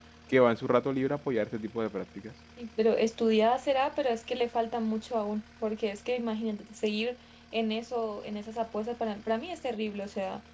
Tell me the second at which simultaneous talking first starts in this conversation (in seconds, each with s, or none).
none